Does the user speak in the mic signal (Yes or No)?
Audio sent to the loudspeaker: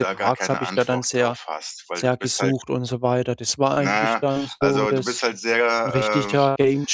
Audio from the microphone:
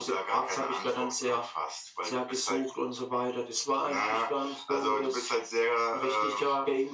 No